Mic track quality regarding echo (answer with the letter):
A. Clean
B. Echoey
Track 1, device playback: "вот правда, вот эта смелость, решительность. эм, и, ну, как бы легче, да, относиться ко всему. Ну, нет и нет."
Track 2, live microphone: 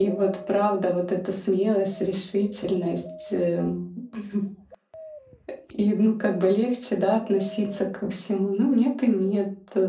B